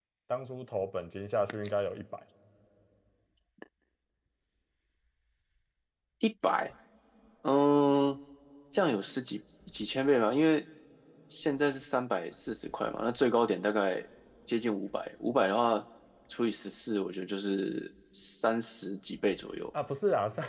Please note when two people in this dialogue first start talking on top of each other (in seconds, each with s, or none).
none